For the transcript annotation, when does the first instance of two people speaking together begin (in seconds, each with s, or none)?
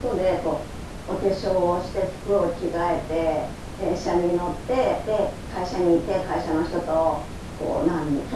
none